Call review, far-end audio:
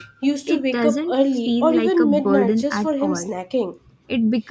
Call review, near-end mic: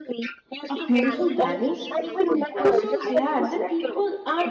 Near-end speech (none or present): present